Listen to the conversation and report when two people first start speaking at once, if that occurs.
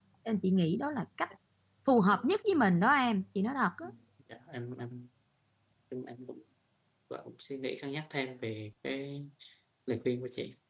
none

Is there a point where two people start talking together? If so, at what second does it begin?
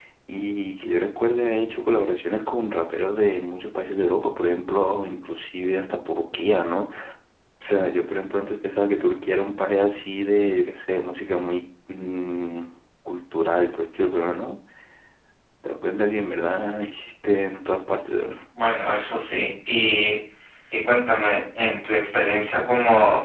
none

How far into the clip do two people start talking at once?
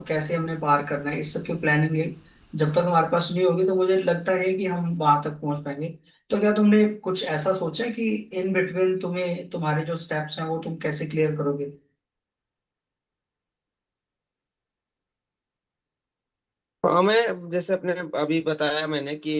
none

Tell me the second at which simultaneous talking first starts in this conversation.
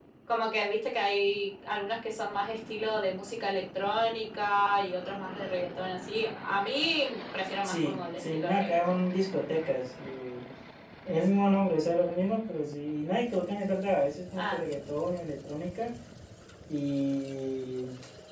7.6 s

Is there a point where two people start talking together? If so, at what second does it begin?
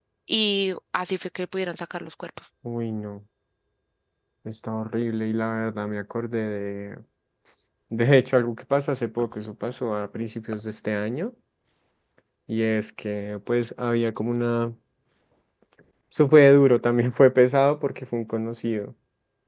none

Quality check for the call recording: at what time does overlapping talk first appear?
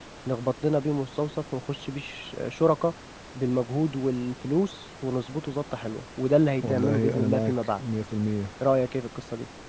6.6 s

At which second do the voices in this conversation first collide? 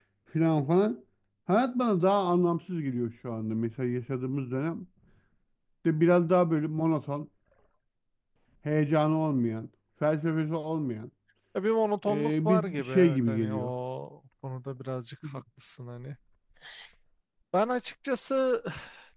12.1 s

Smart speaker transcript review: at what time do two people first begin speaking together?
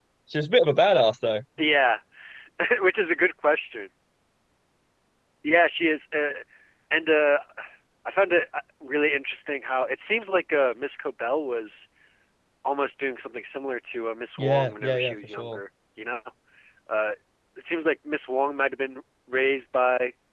14.4 s

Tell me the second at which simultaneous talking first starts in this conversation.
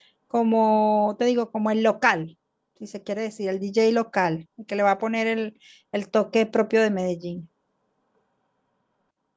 none

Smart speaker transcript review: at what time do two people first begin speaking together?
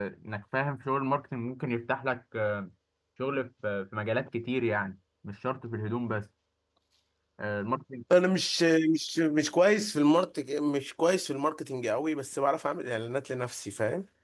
none

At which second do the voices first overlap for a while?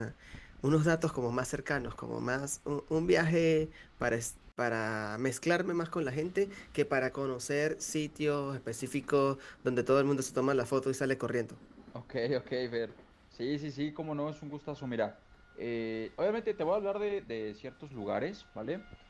none

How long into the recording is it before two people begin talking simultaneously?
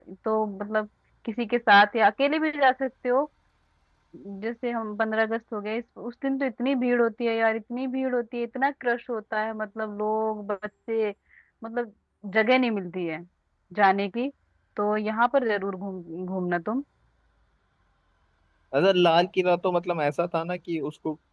none

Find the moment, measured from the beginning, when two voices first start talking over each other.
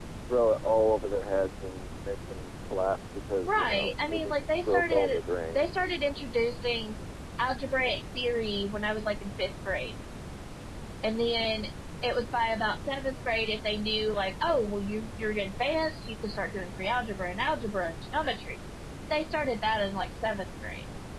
3.5 s

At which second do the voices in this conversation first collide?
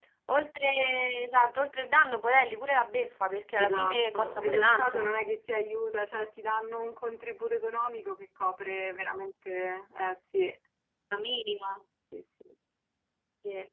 3.6 s

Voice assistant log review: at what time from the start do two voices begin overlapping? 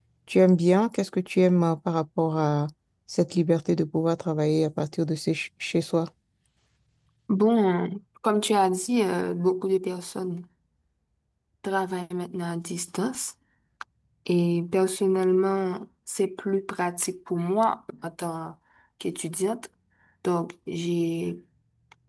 none

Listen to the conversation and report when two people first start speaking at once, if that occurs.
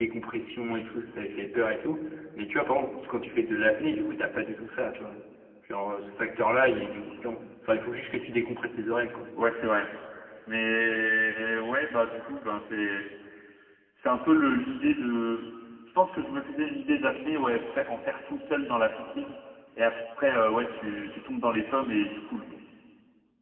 none

